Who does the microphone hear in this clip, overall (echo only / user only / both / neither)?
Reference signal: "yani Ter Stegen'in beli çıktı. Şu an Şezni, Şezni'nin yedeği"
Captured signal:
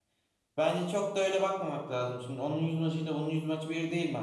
user only